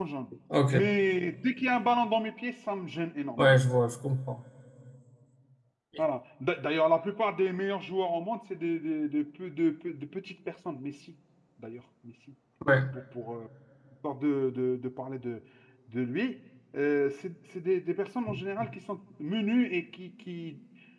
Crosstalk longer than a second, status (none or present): none